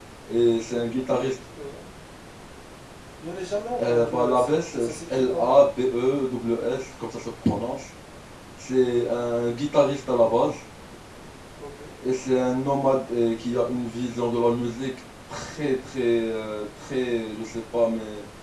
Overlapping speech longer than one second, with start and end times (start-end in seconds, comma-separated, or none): 3.8-5.6